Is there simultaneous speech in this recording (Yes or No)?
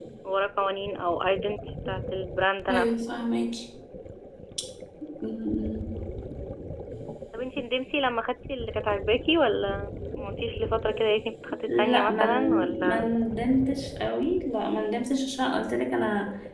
Yes